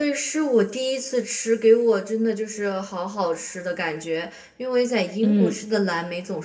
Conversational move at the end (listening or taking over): listening